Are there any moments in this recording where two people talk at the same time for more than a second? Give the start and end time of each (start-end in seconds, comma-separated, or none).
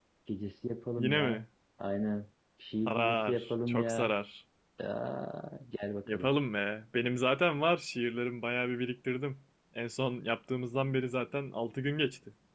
2.9-4.1